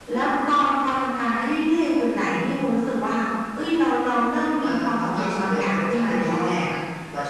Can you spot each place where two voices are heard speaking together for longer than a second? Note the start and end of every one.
4.6-6.6

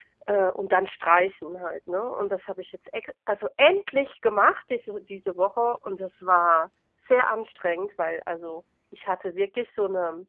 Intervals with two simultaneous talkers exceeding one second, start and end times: none

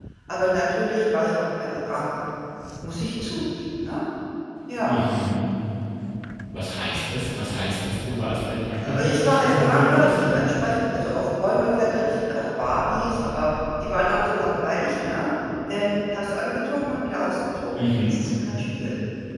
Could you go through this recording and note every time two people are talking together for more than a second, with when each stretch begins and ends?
9.0-10.3

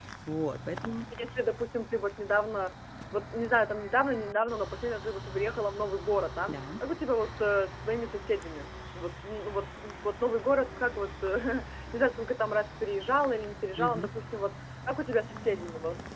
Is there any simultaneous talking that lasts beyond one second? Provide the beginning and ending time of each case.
none

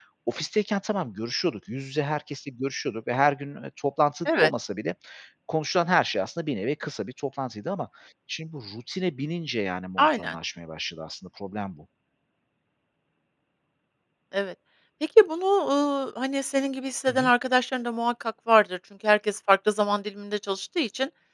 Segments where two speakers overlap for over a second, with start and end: none

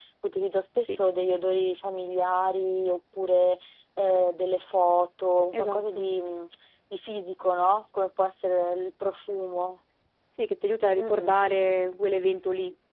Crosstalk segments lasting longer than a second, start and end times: none

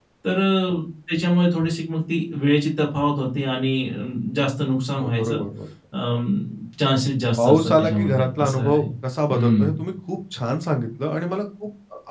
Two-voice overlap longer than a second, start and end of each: 7.4-8.8

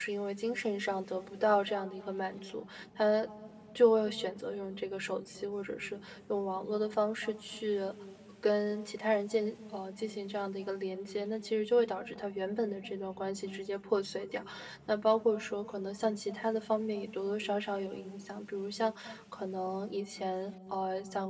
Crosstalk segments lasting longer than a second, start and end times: none

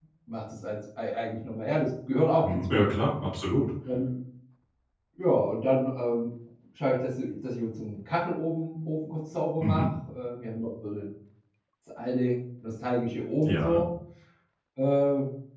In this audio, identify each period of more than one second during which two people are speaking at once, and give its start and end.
none

